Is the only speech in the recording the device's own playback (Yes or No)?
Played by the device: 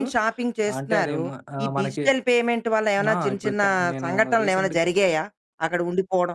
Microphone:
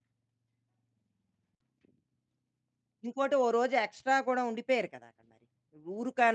No